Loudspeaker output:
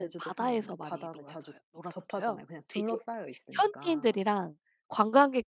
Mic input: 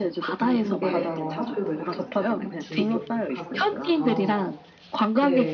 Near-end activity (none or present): present